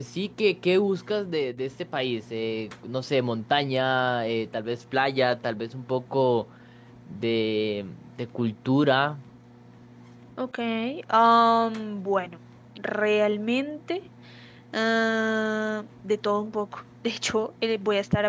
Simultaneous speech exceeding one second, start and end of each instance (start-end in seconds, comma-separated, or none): none